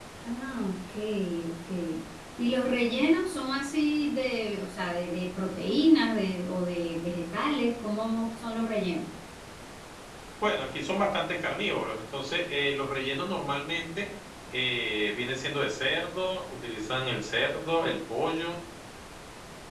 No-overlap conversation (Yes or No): Yes